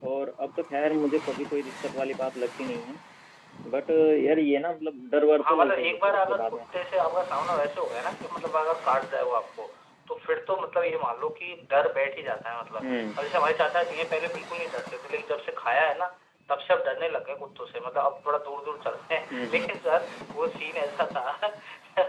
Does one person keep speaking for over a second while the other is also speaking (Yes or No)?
Yes